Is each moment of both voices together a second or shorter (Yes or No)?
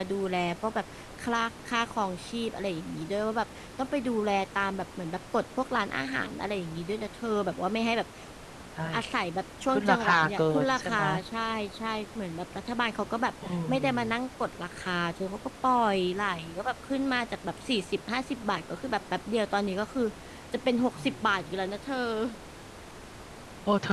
No